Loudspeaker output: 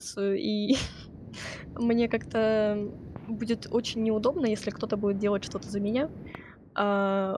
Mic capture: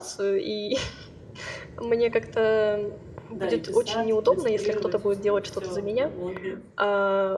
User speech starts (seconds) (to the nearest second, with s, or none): 3 s